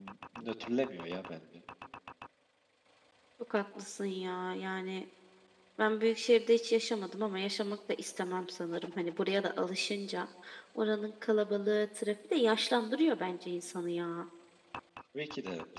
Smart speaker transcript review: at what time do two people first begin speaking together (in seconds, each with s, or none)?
none